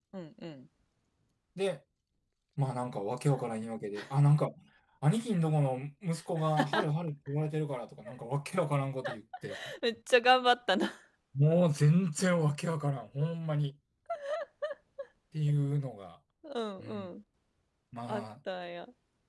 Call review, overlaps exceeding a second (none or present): none